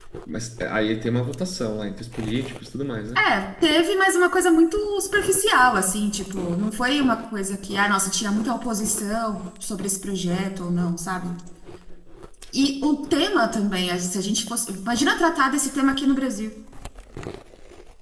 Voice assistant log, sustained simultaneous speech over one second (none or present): none